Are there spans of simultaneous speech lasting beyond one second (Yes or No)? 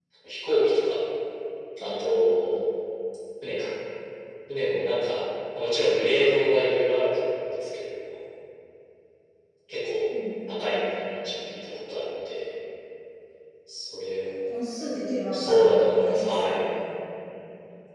Yes